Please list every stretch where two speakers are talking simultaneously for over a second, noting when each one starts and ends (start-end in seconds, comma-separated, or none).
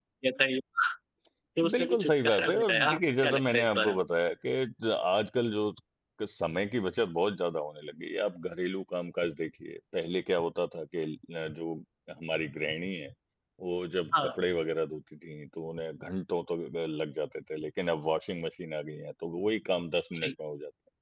1.7-4.0